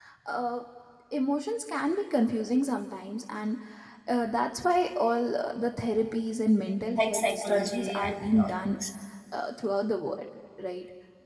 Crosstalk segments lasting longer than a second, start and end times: 6.9-8.6

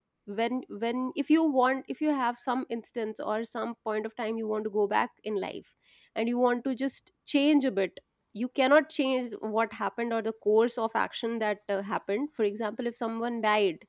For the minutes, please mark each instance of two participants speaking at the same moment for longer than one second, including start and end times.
none

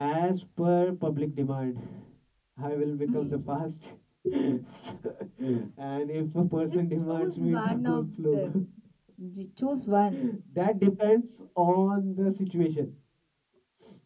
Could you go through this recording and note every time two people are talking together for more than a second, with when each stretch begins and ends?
6.7-8.4

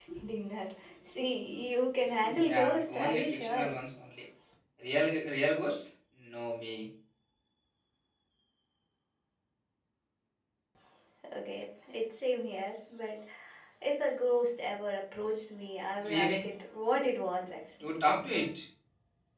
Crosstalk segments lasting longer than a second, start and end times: 2.2-3.7

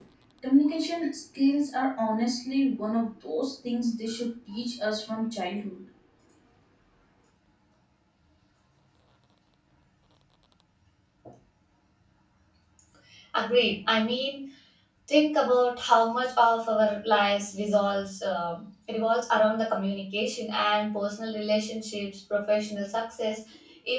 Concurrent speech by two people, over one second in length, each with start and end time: none

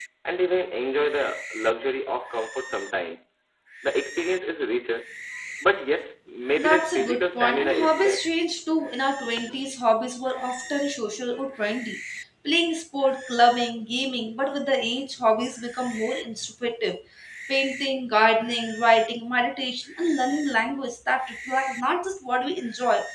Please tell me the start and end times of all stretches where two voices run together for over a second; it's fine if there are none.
6.6-8.3

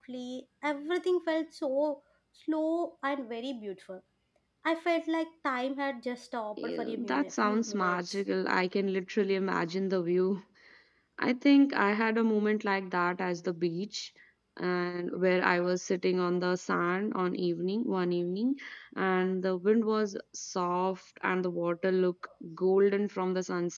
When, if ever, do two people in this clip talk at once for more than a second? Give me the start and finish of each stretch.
6.6-8.0

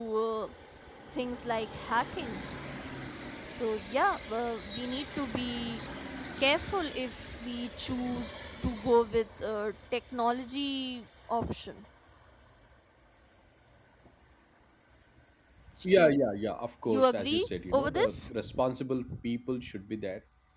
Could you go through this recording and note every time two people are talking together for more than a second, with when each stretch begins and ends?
16.9-18.3

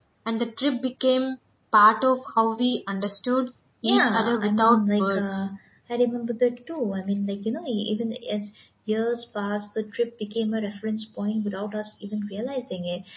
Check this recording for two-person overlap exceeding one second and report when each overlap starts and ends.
3.8-5.5

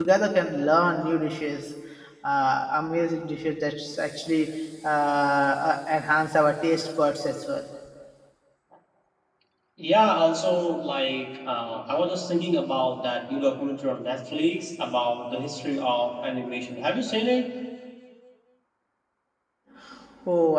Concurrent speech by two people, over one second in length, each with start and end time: none

